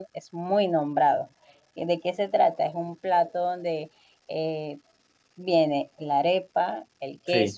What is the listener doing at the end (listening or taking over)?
listening